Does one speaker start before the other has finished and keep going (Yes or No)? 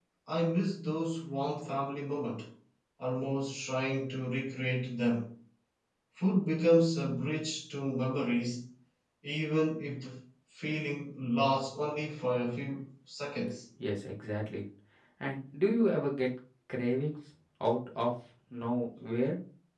No